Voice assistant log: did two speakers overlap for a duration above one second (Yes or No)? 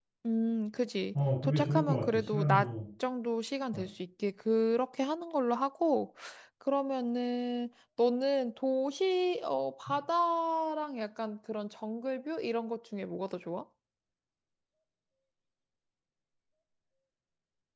Yes